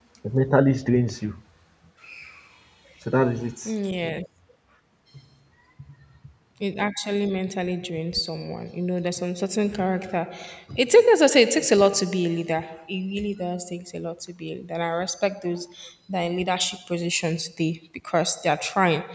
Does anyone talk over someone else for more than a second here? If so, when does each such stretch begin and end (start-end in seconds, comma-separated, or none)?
none